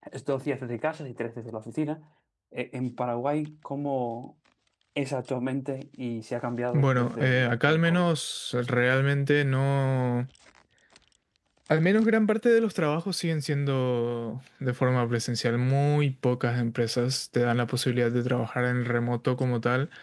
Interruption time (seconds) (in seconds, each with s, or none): 6.7 s